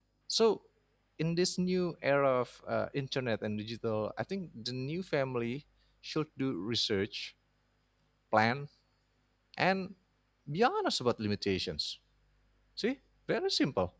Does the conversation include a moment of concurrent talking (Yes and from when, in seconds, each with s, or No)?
No